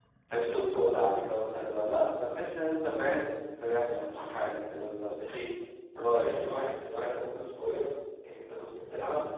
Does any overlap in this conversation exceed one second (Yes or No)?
No